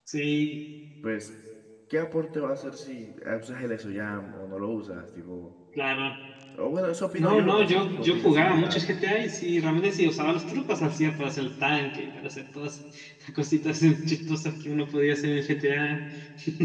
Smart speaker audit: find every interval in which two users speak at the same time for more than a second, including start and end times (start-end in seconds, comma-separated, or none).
7.2-8.8